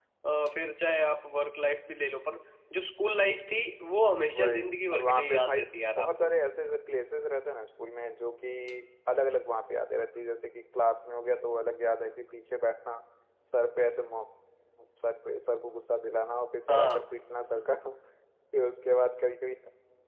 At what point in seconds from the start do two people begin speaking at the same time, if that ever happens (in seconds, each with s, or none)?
4.3 s